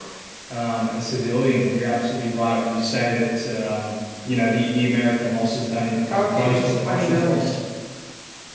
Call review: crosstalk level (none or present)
present